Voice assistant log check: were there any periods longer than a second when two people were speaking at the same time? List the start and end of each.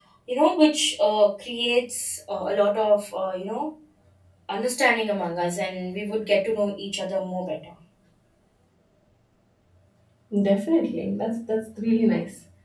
none

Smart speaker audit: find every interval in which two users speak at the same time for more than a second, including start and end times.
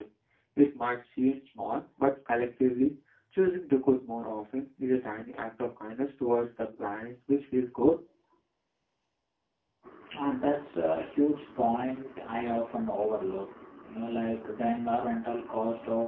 none

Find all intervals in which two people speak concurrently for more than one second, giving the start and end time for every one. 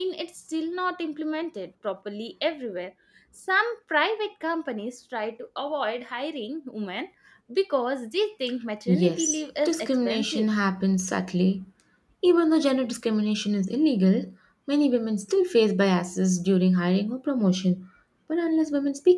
8.9-10.5

